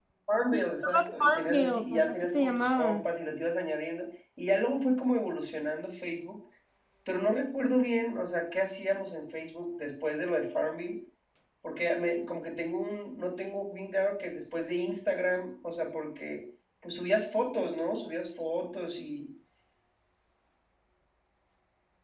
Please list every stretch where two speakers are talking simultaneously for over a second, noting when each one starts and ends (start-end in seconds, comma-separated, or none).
0.5-3.0